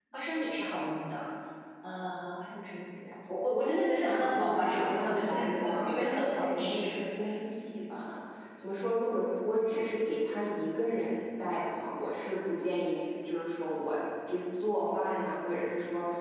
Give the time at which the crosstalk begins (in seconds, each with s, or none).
3.5 s